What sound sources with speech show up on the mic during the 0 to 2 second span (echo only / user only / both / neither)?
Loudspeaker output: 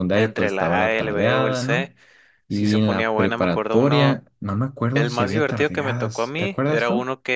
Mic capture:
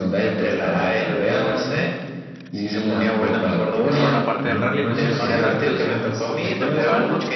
echo only